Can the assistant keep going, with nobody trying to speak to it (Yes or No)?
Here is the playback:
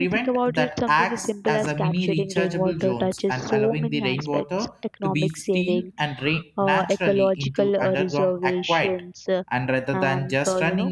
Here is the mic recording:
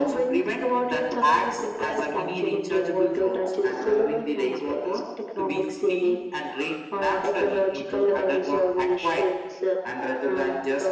Yes